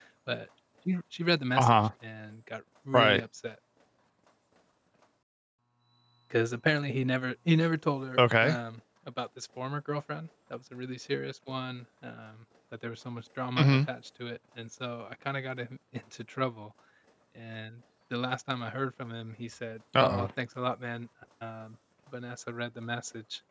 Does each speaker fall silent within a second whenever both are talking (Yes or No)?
Yes